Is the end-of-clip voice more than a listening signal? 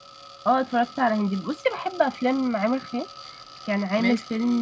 No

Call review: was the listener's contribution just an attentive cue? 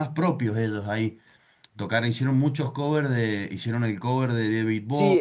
No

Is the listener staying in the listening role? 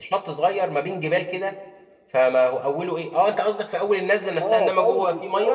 No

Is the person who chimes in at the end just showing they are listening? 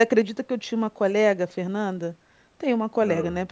Yes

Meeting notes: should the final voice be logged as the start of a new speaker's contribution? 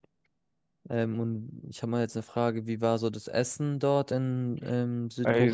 Yes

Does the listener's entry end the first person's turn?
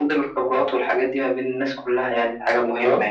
Yes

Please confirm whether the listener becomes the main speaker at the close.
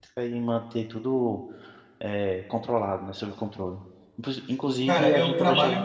Yes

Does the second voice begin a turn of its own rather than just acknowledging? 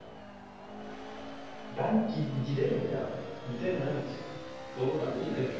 Yes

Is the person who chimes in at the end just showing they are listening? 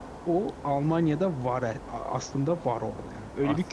No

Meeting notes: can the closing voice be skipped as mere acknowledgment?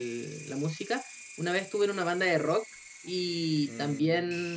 Yes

